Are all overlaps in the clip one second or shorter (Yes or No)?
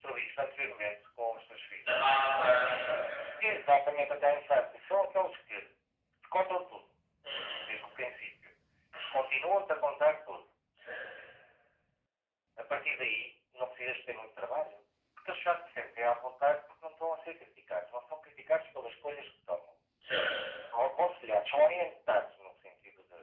Yes